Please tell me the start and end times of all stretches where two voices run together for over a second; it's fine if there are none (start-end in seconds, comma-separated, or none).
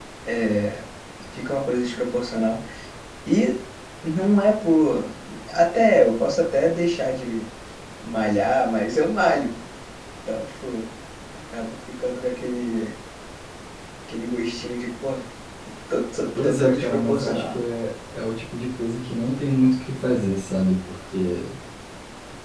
16.3-17.6